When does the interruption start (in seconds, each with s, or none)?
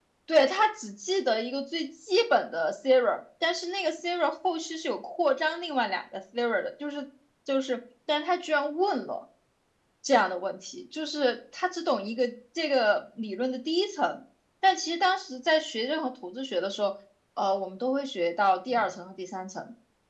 none